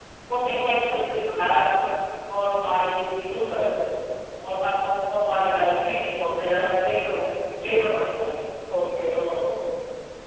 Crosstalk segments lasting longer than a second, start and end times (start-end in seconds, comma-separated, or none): none